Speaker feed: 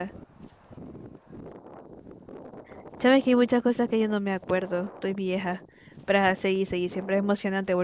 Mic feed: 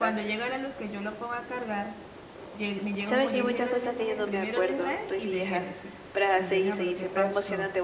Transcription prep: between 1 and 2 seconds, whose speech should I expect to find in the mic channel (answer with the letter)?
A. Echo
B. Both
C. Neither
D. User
D